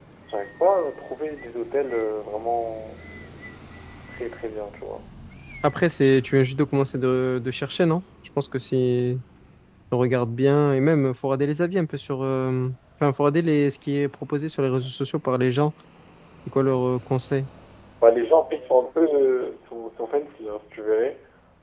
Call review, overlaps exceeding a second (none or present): none